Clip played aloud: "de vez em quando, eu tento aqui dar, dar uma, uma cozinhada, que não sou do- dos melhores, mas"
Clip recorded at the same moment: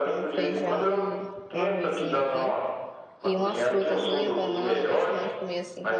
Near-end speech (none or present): present